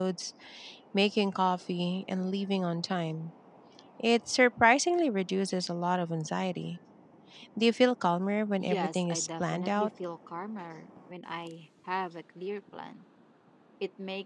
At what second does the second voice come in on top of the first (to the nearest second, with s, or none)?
9 s